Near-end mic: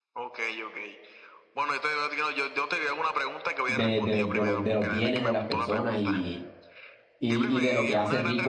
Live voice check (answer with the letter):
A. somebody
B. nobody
A